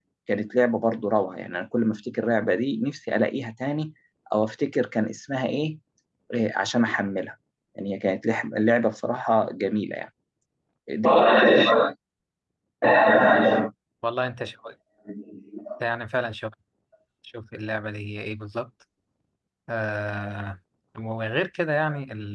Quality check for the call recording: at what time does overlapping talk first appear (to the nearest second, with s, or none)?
none